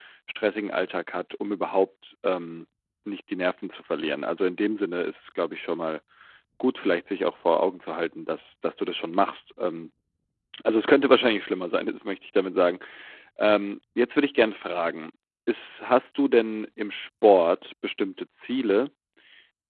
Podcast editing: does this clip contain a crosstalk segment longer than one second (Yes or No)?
No